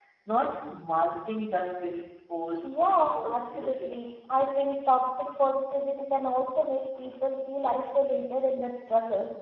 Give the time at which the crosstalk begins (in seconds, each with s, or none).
2.6 s